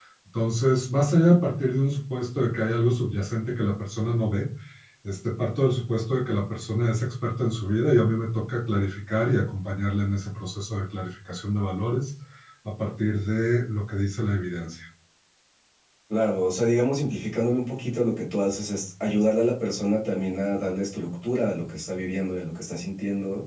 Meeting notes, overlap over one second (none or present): none